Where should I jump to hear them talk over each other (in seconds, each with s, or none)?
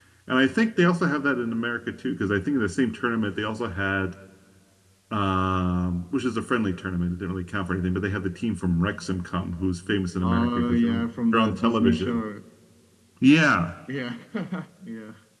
10.2 s